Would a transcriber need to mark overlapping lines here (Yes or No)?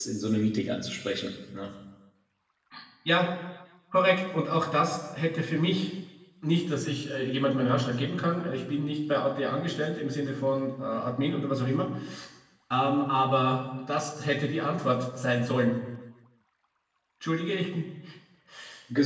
No